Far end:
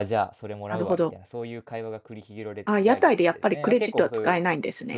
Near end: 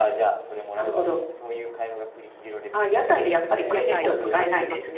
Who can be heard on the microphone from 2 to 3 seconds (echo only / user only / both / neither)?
echo only